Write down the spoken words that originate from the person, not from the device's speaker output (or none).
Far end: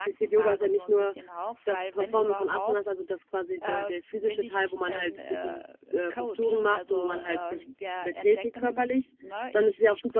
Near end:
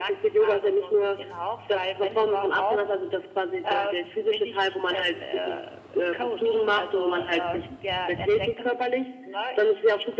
none